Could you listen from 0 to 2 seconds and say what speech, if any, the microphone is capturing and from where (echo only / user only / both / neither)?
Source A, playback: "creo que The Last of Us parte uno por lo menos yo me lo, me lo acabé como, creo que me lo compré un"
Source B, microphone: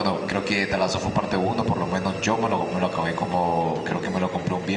echo only